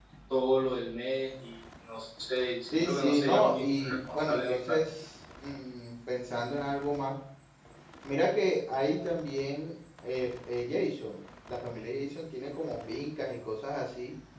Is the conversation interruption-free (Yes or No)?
No